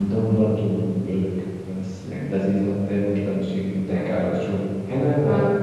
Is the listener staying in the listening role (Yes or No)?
Yes